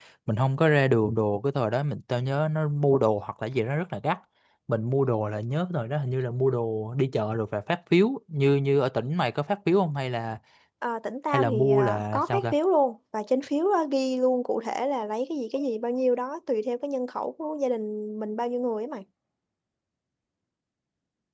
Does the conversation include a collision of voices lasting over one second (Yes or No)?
Yes